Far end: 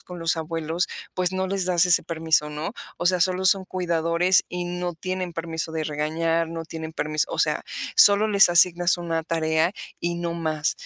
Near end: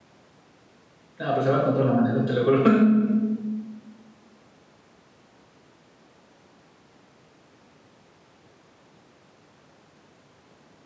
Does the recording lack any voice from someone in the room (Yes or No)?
No